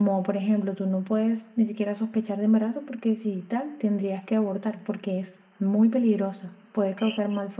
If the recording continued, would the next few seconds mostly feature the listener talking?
No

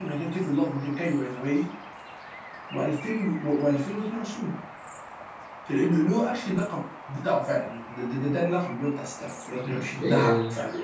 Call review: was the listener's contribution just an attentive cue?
No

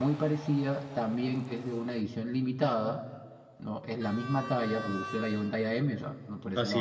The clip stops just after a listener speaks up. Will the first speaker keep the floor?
Yes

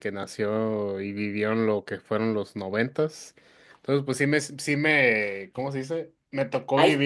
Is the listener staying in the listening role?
Yes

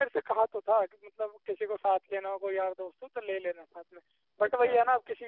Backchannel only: Yes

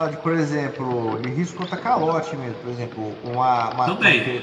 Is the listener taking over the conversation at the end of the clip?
No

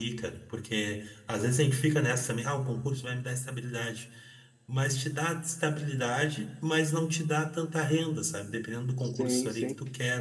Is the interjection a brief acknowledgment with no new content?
Yes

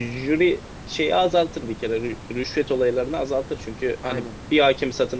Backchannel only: Yes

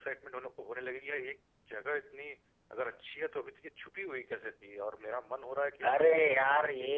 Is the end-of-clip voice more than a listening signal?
Yes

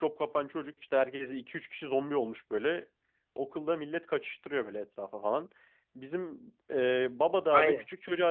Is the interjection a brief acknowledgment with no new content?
Yes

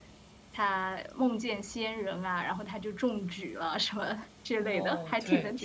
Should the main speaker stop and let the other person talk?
Yes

